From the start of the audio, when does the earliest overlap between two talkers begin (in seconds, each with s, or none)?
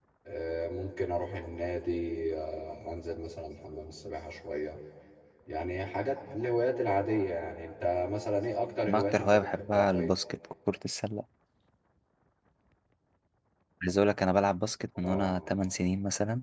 8.9 s